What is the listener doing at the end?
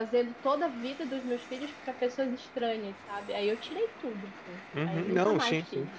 taking over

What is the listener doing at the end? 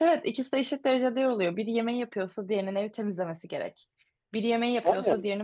listening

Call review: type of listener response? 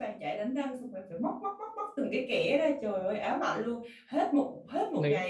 listening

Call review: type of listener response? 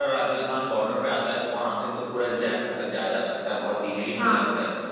taking over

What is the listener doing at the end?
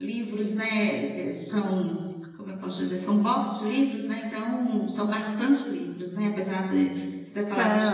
listening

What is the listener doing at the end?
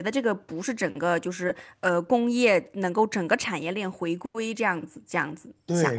taking over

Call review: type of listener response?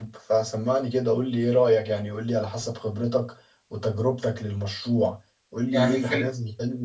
listening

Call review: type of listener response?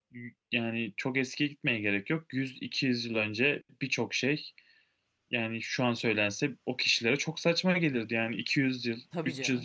listening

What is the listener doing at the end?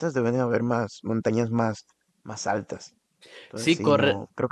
taking over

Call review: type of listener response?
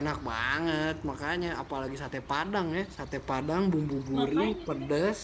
listening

